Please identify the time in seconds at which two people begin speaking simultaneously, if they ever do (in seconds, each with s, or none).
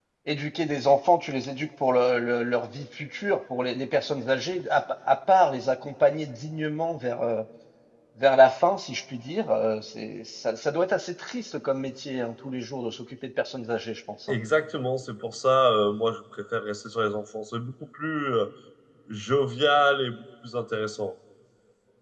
none